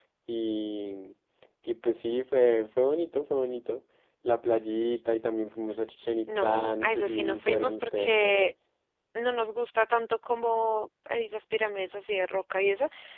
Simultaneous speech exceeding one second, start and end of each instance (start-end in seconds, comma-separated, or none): 6.3-8.5